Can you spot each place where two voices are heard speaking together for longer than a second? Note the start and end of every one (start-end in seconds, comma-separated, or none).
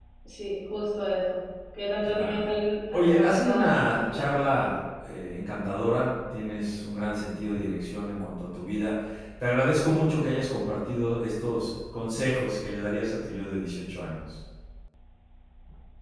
2.9-4.3